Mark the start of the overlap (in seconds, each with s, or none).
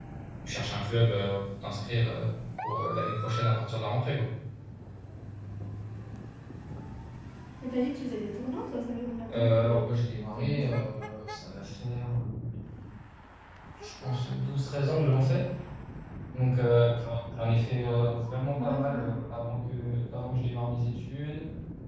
9.3 s